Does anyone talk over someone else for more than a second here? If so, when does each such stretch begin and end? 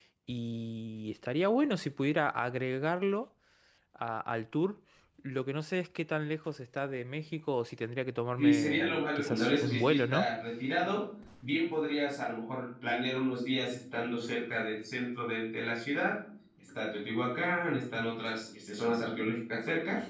8.4-10.3

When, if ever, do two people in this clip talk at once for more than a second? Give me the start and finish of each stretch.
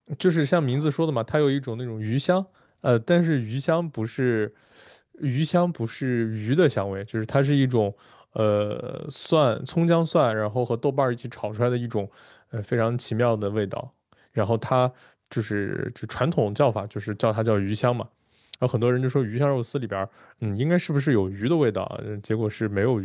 none

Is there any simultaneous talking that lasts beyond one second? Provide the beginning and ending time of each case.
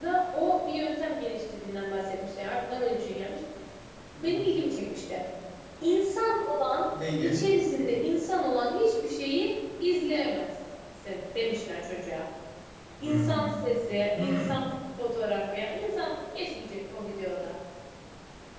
none

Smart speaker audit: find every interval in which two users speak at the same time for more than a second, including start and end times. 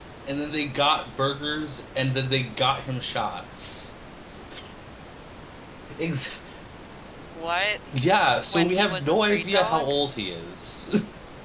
8.5-9.9

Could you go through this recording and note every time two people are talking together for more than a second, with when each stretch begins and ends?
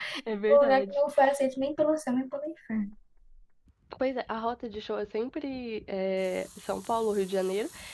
none

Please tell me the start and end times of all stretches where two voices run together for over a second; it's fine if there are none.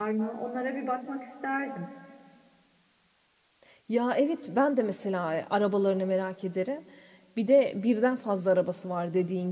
none

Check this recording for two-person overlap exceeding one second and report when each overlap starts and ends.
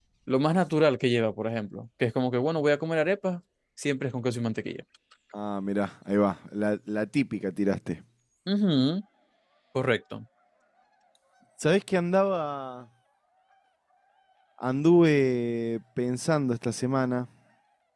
none

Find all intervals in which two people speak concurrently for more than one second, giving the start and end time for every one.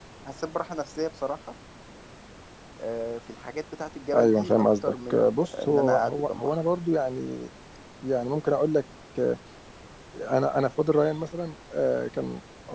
4.1-6.6

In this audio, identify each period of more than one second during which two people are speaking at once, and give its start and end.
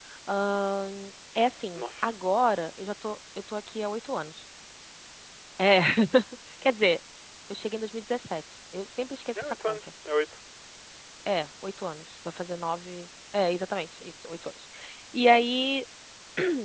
none

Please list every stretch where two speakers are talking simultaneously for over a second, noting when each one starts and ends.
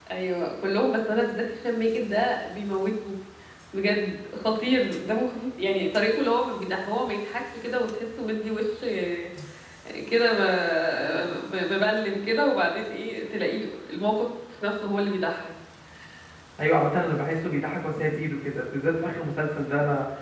none

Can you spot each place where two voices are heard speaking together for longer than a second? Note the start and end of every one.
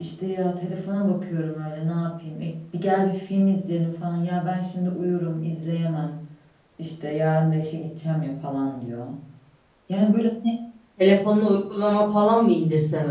none

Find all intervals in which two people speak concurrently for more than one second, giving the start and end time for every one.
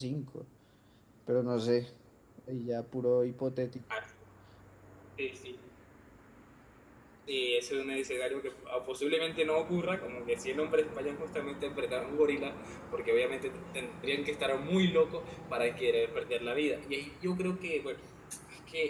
none

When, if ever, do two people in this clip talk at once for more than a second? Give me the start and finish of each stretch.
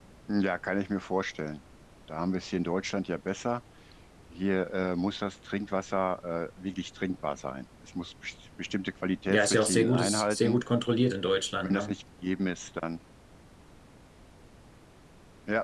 9.3-10.6

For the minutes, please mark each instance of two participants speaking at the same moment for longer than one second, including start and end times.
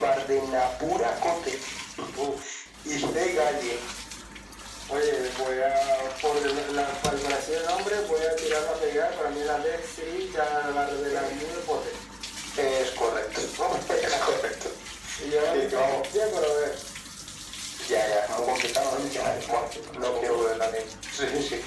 19.0-20.4

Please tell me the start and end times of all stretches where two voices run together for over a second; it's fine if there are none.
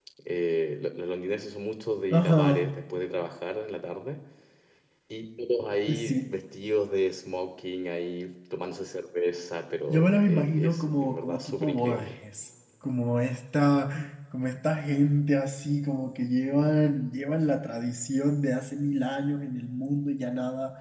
9.9-12.1

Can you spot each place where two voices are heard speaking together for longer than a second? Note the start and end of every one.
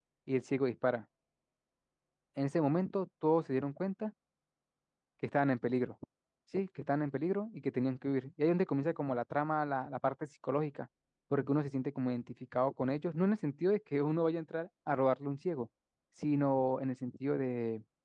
none

